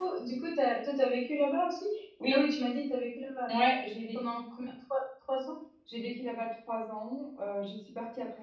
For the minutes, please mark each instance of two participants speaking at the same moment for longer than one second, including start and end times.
none

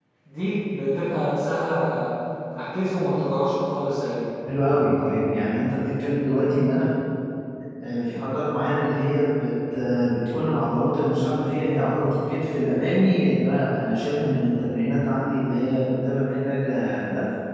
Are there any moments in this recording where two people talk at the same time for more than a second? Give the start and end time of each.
none

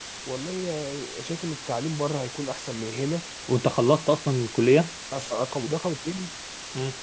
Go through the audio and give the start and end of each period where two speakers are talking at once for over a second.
none

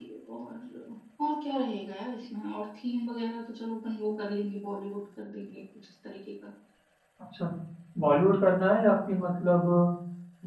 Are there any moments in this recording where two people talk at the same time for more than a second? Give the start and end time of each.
none

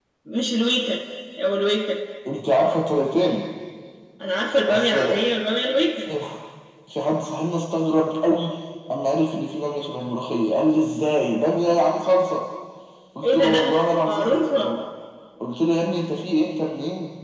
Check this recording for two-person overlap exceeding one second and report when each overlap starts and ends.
13.2-14.7

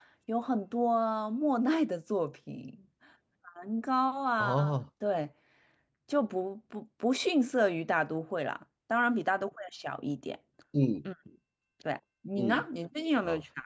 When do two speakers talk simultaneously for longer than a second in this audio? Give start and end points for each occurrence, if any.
none

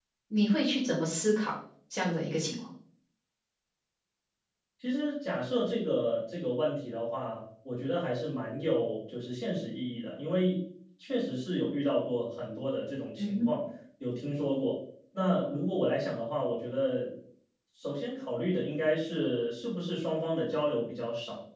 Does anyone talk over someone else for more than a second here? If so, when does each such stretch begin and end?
none

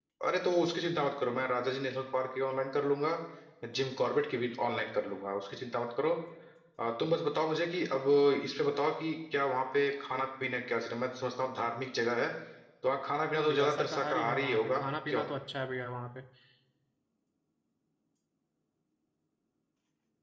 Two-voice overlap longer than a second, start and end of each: 13.4-15.3

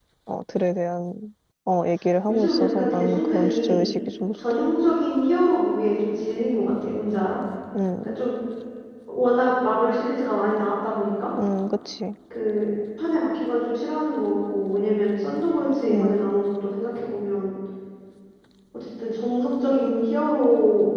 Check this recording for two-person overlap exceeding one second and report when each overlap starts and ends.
2.3-3.9

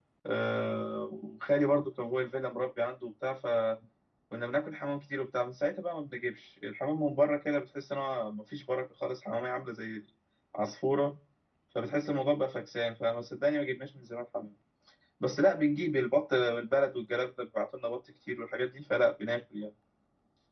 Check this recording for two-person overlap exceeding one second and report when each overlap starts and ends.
none

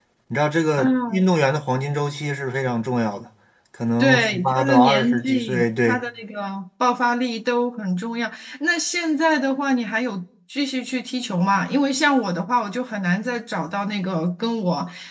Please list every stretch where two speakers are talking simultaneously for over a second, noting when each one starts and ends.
4.0-6.0

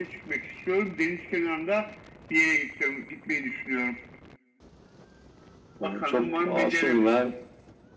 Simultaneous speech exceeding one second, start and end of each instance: 5.8-7.3

